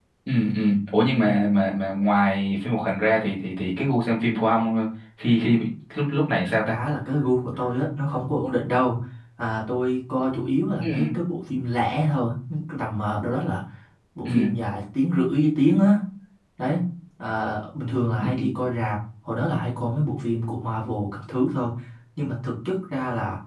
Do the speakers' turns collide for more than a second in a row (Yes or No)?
No